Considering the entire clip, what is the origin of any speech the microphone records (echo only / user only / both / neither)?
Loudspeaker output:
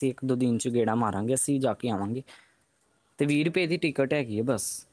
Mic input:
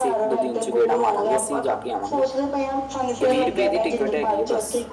both